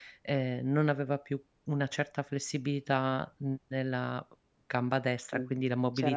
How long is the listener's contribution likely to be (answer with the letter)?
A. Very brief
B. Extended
B